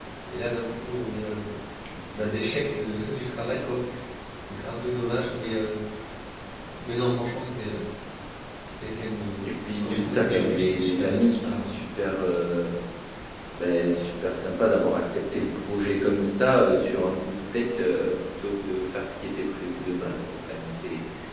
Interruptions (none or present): present